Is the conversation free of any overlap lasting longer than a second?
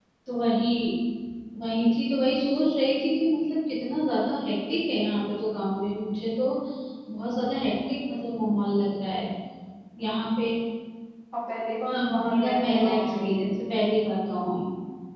No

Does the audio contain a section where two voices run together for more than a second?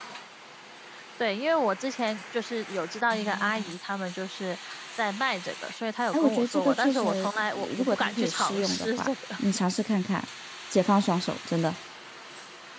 Yes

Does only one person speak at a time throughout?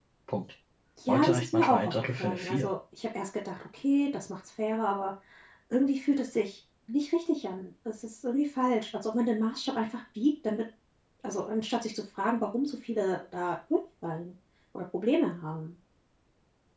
No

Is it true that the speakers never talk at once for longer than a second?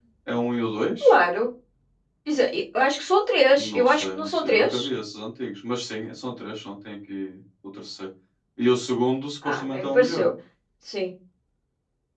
No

